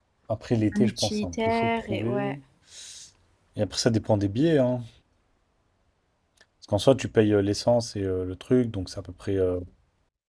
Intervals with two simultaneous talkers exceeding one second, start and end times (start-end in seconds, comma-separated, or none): 0.7-2.4